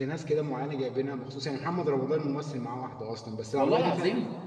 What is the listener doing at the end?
listening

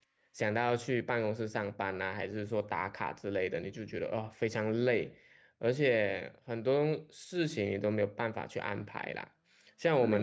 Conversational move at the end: listening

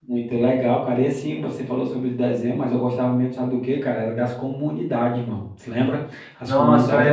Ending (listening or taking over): taking over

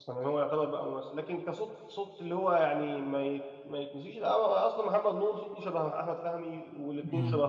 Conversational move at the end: listening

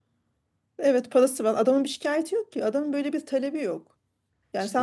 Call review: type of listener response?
listening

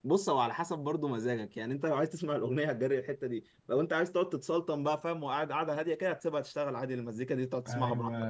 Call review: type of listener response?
taking over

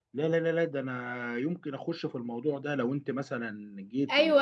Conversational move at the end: taking over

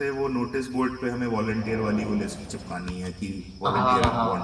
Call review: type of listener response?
taking over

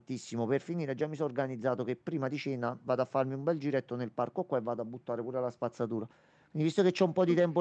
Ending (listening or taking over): listening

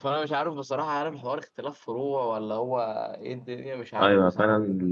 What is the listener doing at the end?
taking over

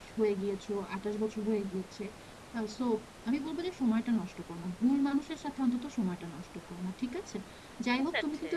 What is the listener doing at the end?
listening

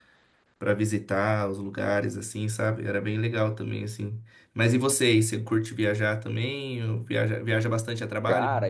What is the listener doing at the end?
taking over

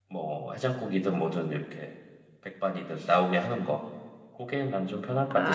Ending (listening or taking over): taking over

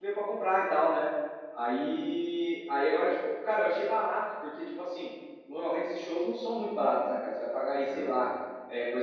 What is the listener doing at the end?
listening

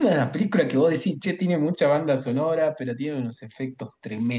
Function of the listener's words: taking over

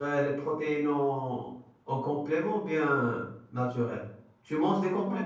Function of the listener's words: taking over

